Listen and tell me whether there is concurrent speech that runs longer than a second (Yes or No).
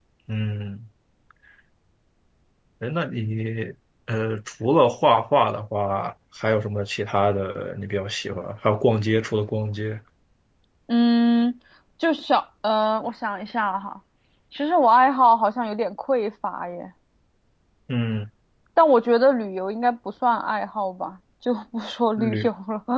No